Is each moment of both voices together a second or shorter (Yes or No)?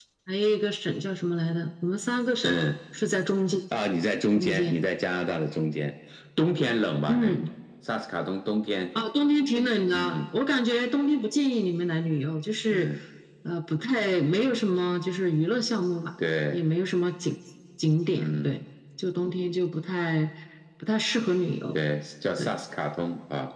Yes